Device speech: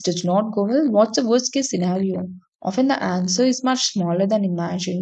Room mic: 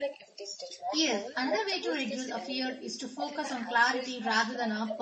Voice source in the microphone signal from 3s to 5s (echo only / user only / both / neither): both